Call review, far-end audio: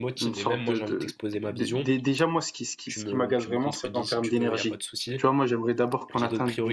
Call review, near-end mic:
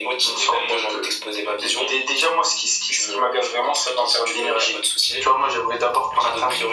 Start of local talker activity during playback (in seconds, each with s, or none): none